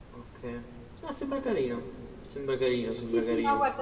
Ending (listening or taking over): taking over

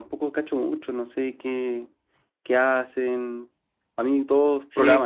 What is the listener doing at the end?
taking over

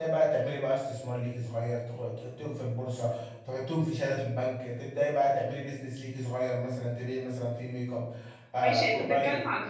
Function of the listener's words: taking over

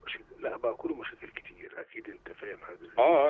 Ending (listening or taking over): taking over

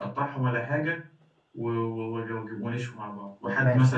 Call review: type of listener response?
listening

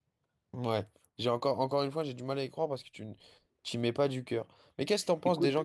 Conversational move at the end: listening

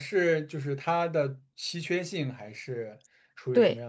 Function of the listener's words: taking over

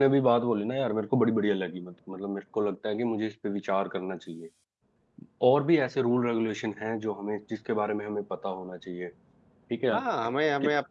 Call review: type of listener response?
taking over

